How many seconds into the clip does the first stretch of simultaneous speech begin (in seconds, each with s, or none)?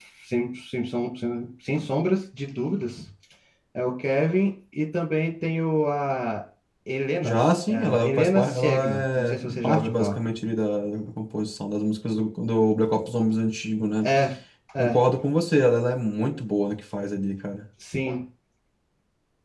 7.2 s